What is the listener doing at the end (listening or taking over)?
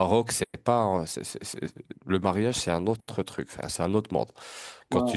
listening